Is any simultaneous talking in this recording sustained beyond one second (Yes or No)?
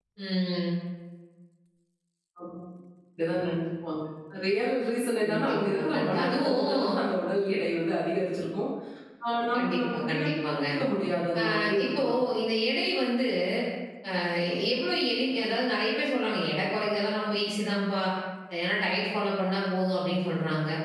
Yes